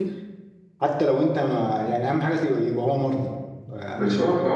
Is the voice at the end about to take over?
Yes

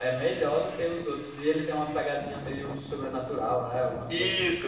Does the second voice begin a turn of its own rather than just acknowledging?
Yes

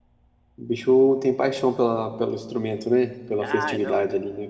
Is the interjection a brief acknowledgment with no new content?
No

